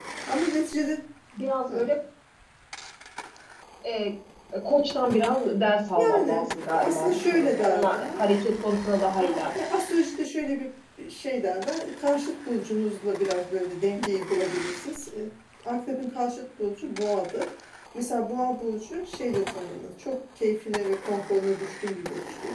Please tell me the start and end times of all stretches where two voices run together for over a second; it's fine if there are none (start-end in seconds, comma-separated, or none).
6.0-8.1